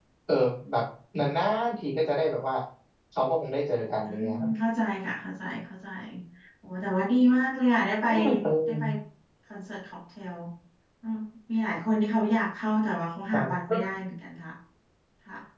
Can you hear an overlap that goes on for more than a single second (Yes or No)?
No